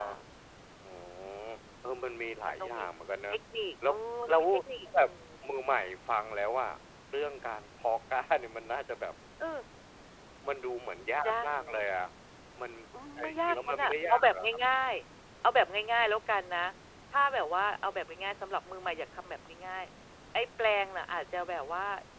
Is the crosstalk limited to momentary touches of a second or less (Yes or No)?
No